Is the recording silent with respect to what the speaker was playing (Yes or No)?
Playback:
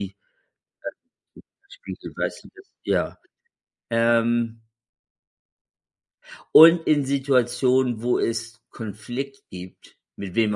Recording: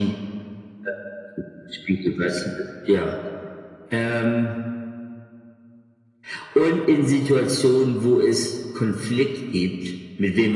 No